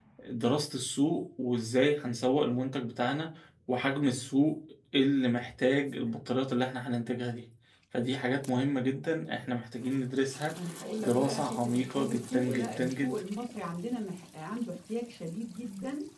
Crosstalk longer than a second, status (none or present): present